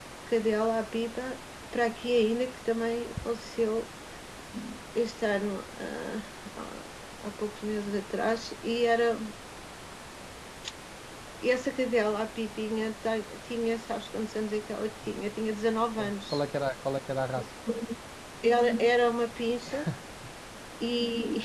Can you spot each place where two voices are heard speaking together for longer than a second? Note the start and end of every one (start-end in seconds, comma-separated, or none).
none